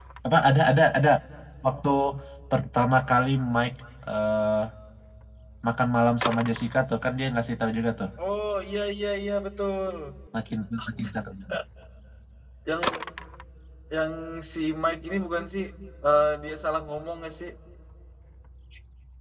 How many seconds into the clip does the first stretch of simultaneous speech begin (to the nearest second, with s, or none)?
none